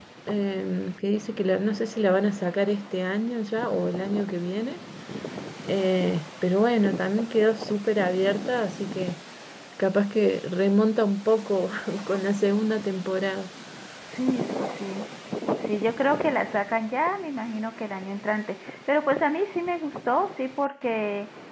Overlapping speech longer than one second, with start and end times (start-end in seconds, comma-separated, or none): none